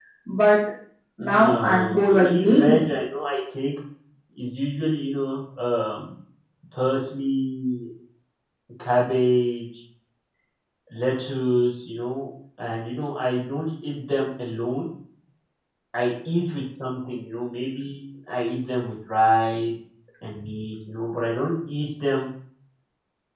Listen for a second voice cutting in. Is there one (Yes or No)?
Yes